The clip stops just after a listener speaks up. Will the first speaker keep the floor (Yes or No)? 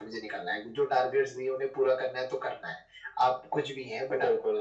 Yes